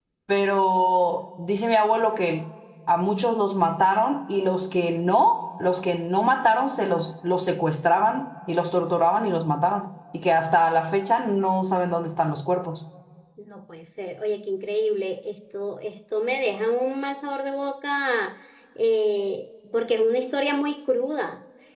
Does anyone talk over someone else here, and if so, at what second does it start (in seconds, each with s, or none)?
none